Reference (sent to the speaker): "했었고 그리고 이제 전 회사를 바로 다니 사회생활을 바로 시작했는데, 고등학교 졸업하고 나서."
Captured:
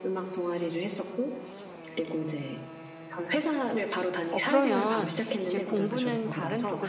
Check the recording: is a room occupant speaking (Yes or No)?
Yes